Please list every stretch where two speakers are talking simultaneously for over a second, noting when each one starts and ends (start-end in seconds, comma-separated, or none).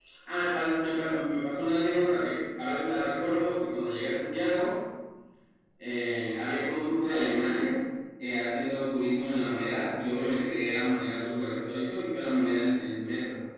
none